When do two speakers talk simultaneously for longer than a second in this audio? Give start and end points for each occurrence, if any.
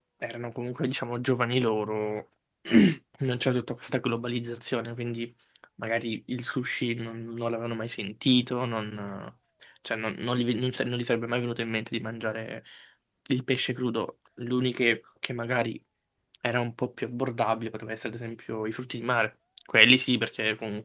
none

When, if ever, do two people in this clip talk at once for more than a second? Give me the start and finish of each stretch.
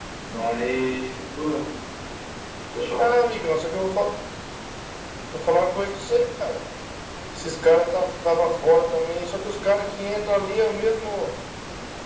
none

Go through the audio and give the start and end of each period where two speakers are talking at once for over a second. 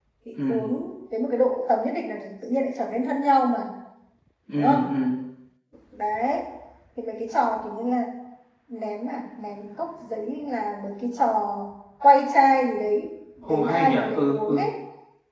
13.4-14.7

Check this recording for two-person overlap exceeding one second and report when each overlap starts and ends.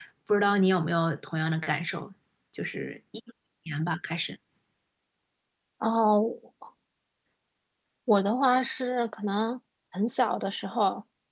none

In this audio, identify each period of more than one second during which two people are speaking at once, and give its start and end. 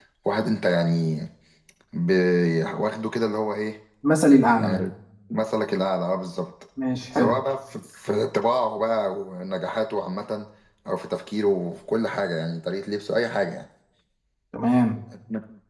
none

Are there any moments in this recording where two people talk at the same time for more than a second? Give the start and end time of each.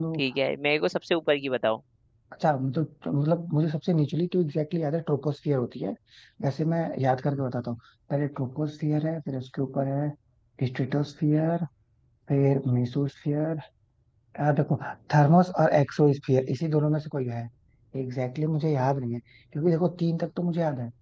none

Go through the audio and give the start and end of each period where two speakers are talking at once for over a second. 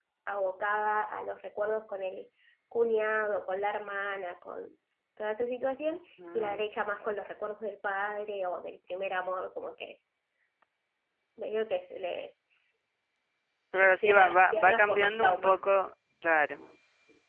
13.8-15.6

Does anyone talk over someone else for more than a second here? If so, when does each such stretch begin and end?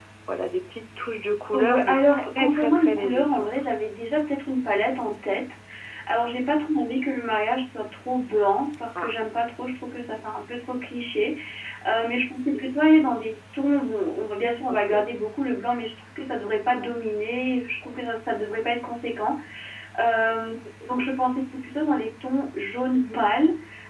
1.5-3.5

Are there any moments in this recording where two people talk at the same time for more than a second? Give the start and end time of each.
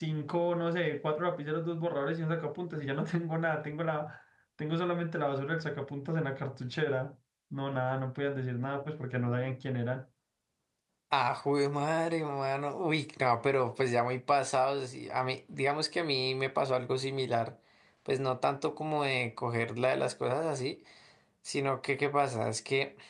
none

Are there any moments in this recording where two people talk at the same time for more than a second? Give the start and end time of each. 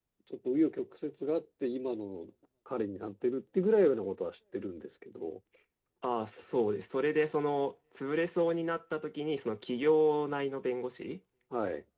none

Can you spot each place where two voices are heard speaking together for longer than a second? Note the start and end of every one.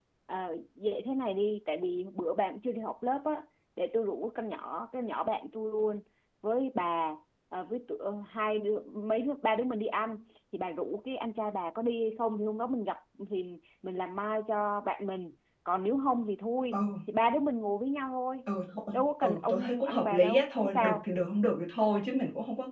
18.9-21.0

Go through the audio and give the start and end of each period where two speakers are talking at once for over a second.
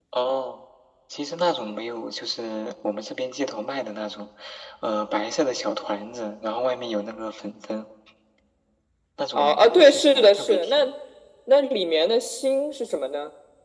9.4-10.9

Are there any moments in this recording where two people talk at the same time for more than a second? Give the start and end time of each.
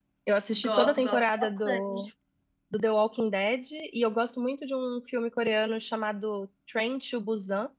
0.5-2.1

